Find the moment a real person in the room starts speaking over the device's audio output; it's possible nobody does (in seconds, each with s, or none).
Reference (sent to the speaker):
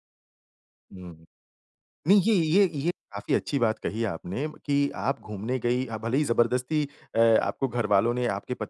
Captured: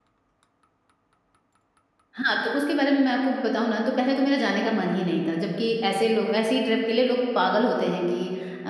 2.1 s